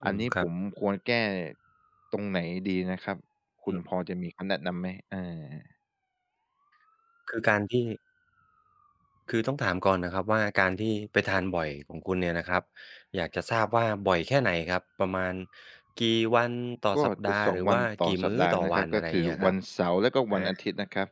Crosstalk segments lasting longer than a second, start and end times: 17.0-19.5

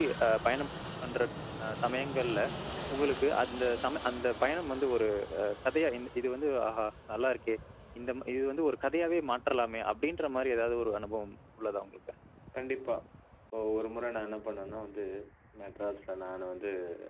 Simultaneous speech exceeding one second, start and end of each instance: none

